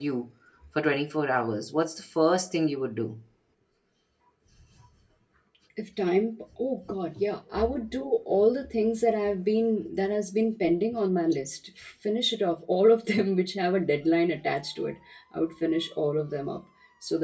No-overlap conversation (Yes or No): Yes